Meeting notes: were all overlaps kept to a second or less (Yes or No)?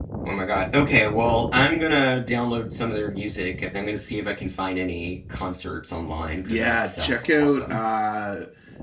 No